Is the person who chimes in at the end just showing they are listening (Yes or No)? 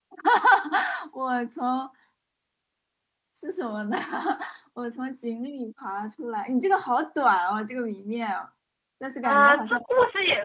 No